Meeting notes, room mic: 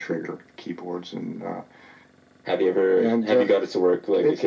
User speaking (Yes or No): No